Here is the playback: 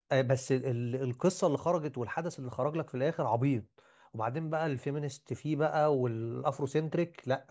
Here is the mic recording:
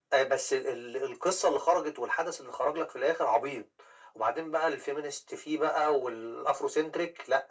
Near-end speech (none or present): none